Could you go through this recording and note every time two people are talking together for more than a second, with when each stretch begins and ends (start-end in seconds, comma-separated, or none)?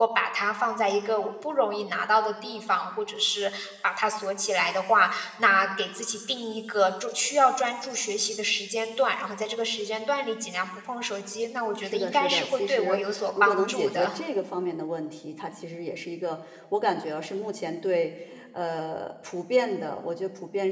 11.8-14.0